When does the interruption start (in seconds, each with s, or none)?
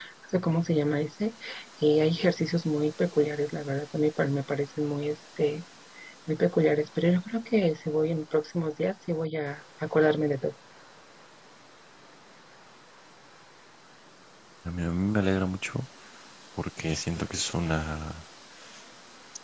none